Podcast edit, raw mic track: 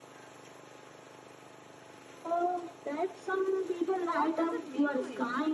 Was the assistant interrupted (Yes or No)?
Yes